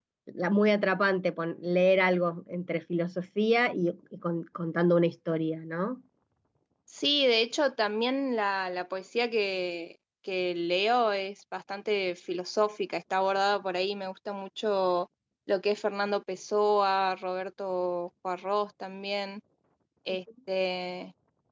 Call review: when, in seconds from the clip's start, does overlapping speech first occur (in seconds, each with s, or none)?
none